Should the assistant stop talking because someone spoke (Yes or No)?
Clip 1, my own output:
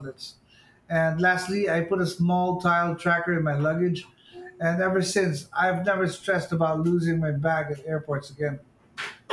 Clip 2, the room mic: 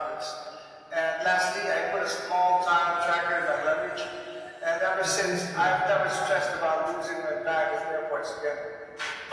Yes